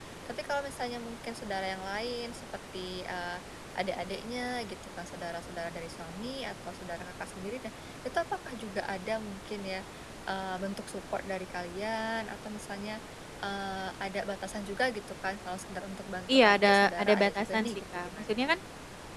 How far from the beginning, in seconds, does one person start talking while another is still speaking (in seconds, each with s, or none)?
16.3 s